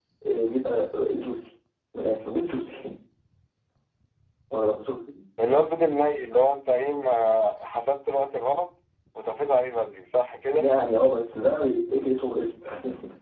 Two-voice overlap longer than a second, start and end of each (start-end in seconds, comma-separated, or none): none